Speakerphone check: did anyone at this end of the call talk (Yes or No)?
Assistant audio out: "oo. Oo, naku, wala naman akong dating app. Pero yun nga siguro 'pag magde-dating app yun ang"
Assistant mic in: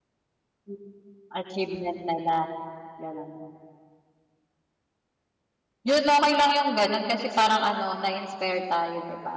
Yes